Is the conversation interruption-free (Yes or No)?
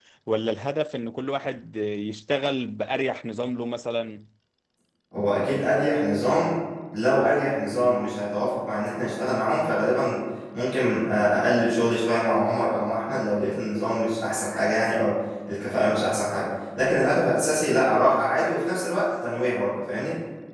Yes